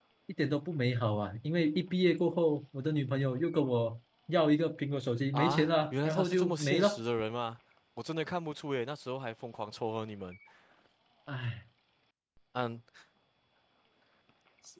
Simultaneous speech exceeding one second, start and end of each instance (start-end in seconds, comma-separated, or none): 5.3-7.0